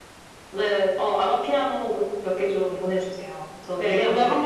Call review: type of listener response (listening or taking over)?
taking over